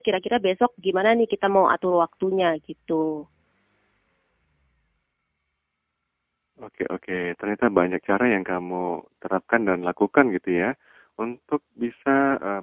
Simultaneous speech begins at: none

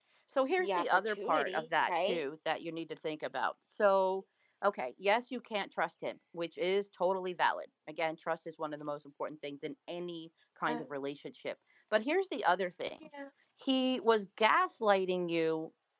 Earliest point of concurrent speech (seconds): 1 s

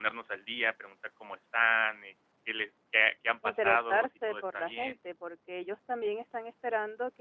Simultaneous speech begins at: 3 s

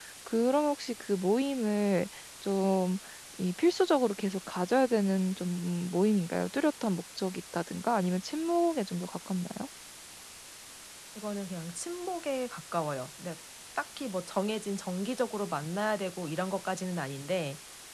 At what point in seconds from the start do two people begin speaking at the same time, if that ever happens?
none

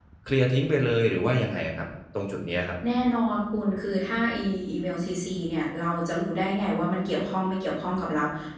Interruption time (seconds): none

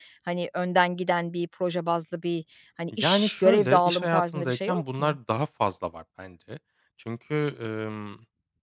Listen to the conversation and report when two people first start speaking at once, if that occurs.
3 s

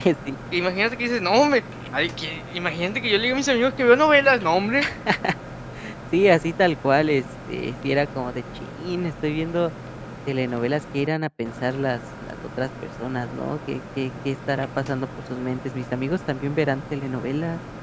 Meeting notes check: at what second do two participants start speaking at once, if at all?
none

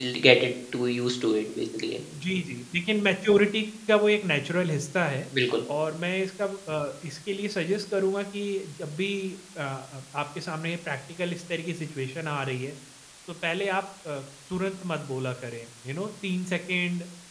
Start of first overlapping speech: none

